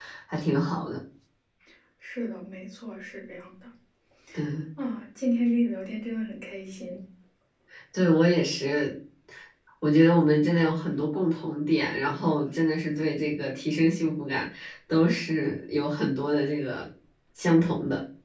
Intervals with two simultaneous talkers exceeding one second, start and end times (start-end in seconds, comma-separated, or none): none